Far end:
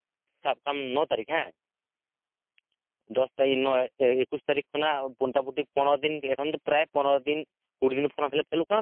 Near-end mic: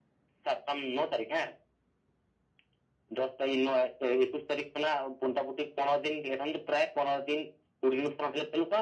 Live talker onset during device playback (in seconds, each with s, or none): none